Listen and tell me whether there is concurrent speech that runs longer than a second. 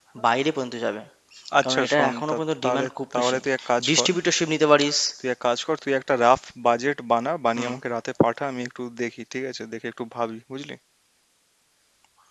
Yes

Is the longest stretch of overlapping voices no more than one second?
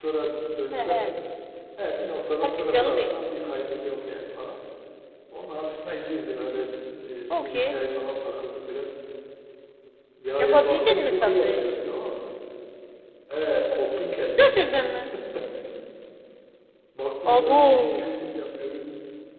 No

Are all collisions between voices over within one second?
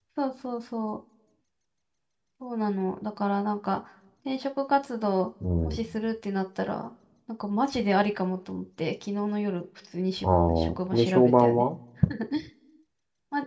No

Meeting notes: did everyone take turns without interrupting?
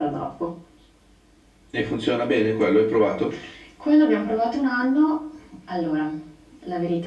Yes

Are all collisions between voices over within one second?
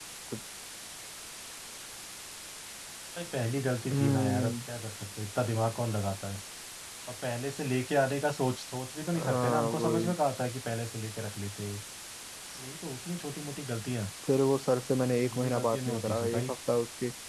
No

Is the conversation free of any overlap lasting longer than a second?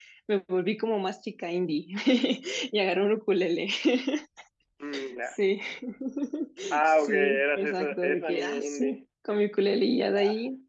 No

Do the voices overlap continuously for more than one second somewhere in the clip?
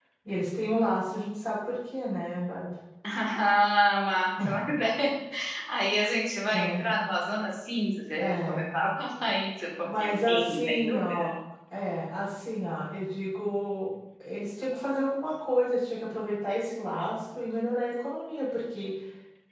Yes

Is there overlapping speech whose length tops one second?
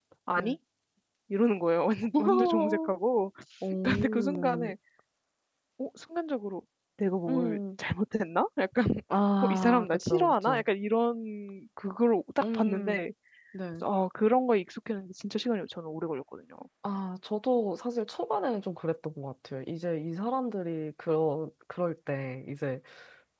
Yes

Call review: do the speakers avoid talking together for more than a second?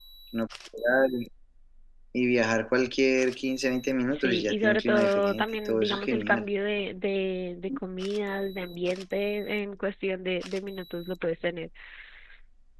No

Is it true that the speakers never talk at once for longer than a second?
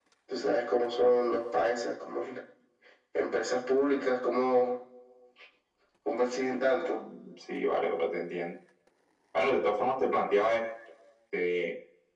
Yes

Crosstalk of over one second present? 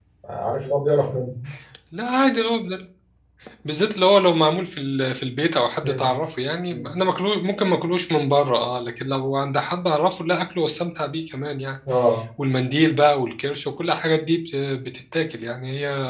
No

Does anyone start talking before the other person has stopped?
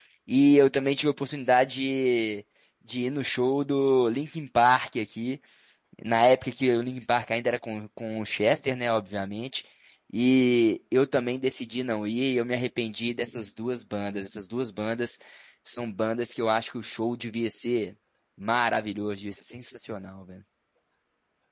No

